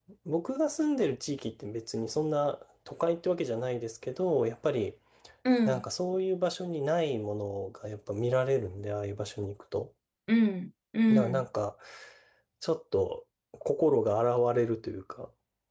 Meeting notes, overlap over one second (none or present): none